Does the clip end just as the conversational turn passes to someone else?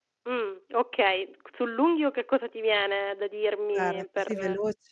Yes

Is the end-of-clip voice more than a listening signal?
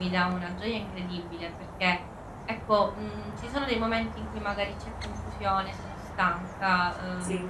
No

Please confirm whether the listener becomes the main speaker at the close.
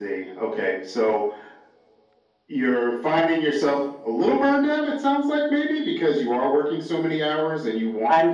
Yes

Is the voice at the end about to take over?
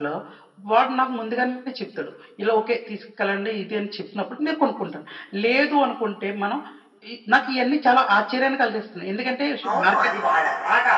Yes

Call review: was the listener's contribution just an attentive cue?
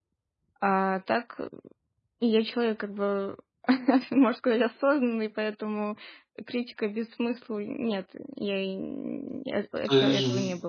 No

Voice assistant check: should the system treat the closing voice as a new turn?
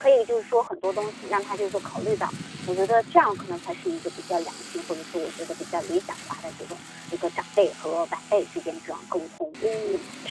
Yes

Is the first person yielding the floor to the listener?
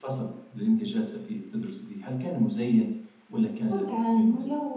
Yes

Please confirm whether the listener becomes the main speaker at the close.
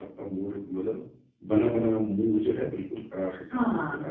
Yes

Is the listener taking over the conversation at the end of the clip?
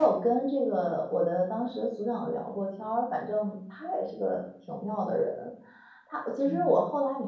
No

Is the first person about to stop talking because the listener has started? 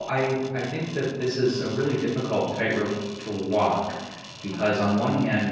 No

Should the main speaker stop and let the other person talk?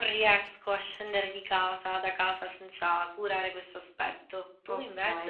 Yes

